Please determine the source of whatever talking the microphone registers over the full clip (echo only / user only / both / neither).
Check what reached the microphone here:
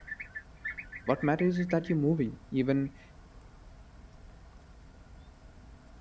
user only